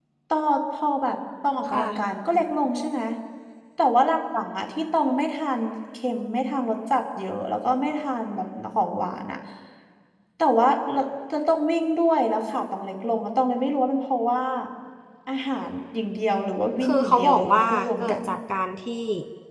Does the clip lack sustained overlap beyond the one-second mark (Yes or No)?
No